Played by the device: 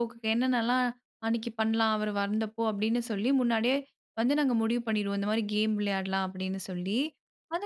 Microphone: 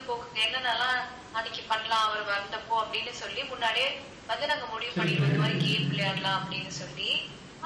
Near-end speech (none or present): present